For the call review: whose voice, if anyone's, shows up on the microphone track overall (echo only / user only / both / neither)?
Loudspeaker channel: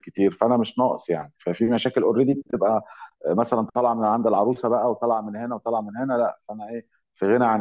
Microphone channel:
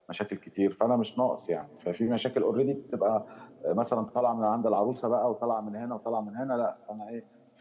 echo only